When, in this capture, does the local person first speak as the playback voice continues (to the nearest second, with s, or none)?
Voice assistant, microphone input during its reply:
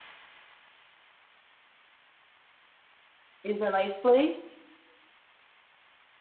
3 s